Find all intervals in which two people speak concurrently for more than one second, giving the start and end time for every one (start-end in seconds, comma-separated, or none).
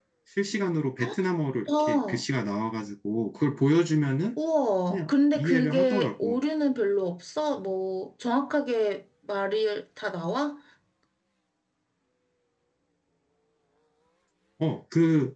4.9-6.4